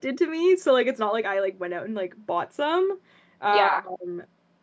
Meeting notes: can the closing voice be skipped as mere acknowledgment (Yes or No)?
Yes